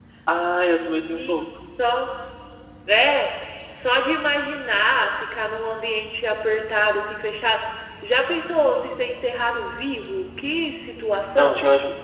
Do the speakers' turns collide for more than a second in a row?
No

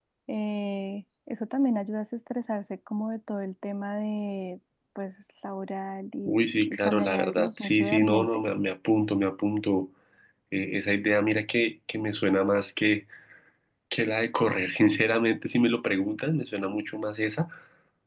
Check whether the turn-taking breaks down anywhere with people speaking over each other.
Yes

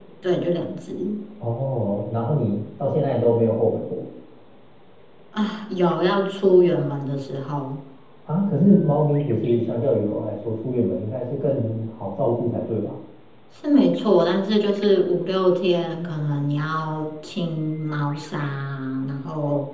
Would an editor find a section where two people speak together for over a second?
No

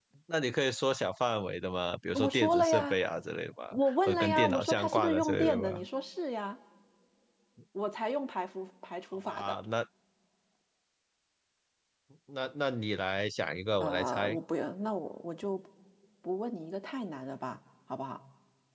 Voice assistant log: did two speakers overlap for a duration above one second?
Yes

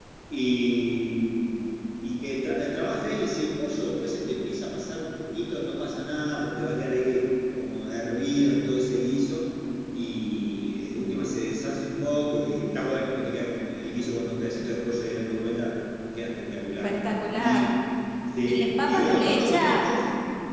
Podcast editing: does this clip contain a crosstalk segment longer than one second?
Yes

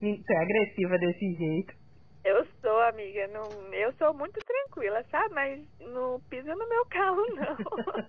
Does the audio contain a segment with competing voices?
No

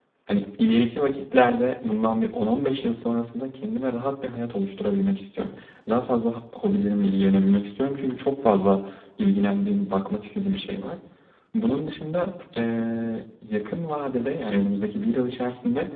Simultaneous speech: No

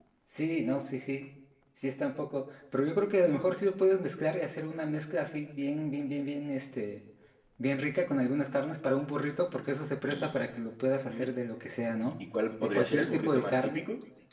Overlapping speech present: Yes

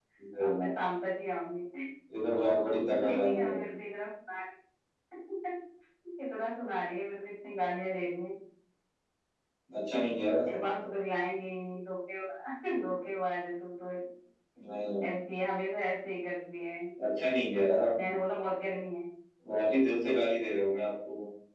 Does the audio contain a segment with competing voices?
Yes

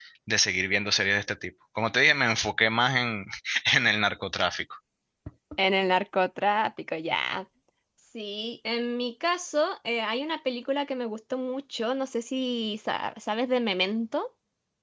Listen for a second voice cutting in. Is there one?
No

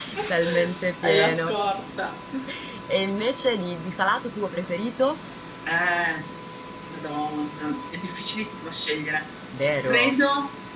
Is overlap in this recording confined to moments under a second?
Yes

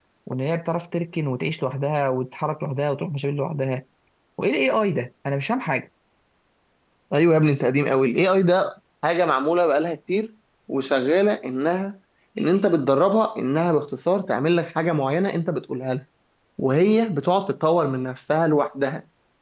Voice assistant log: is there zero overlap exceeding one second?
Yes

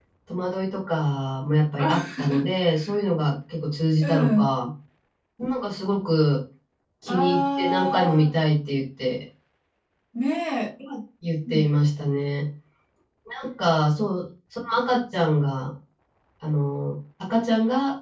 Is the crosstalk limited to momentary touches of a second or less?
No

